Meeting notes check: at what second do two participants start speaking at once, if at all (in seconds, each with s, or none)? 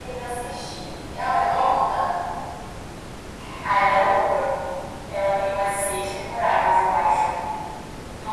none